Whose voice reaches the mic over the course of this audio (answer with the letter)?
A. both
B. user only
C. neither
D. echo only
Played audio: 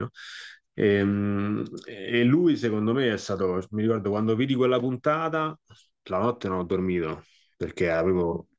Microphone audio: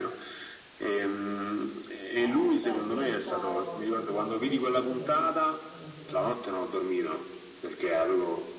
A